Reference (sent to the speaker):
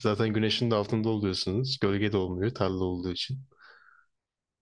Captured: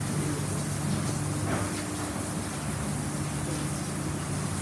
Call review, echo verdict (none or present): none